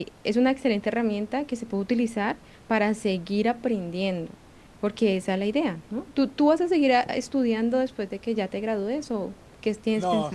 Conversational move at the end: taking over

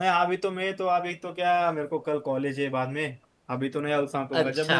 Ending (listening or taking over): listening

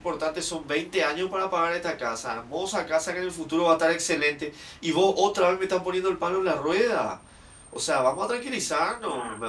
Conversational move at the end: taking over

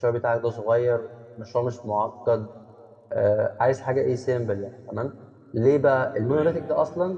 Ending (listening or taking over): listening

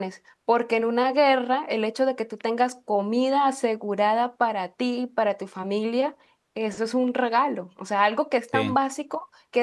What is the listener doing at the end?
listening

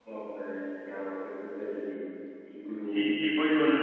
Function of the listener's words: taking over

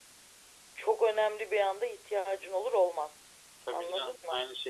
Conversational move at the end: taking over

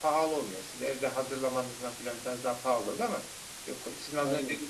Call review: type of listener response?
listening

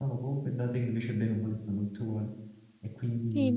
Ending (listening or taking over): taking over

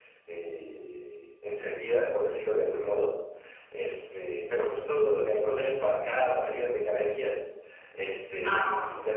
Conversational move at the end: listening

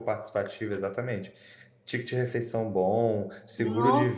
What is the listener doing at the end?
listening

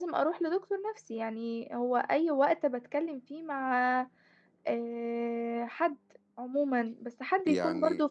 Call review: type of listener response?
listening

